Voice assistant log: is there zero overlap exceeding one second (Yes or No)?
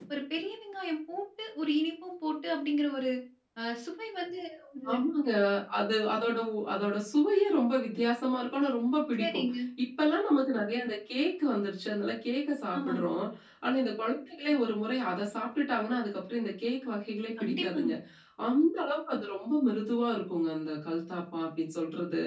Yes